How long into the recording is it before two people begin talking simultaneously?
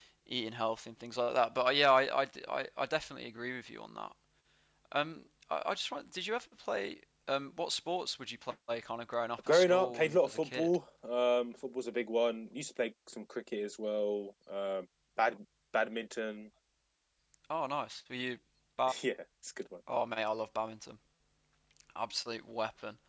9.5 s

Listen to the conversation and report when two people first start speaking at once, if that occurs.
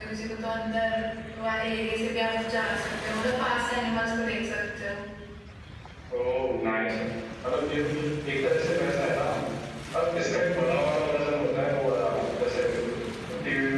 none

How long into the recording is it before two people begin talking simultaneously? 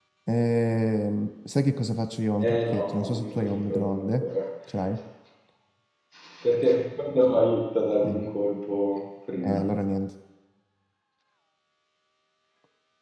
2.5 s

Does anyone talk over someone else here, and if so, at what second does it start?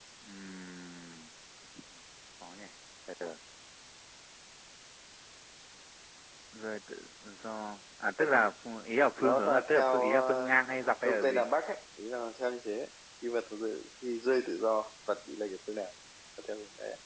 9.2 s

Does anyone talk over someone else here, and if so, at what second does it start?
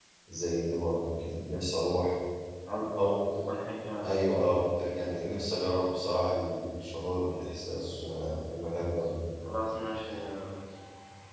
none

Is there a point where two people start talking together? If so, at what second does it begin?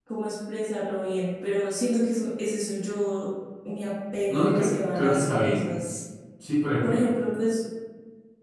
4.3 s

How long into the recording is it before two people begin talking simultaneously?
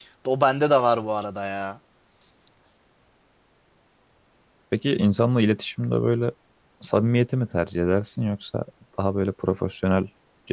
none

